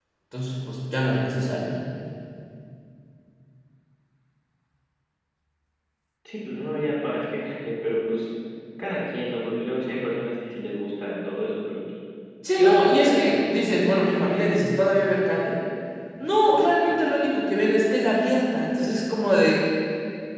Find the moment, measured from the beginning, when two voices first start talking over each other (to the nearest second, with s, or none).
13 s